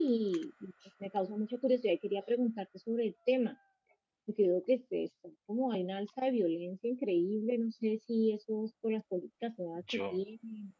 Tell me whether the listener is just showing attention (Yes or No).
Yes